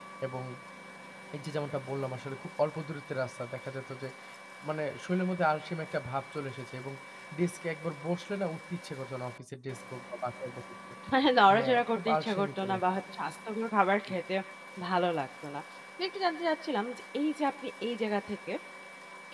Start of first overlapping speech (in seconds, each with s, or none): 11.6 s